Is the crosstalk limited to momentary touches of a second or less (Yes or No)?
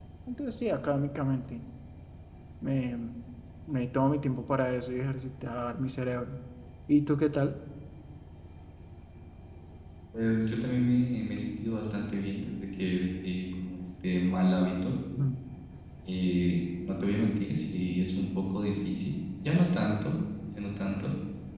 Yes